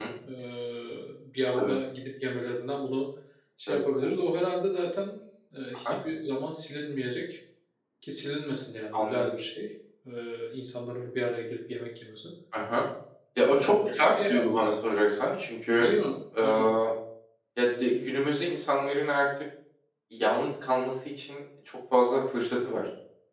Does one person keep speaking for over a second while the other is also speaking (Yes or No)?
Yes